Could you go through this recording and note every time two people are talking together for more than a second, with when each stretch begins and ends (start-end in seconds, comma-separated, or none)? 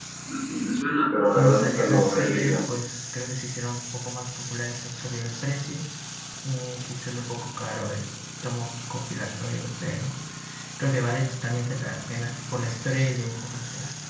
1.3-2.6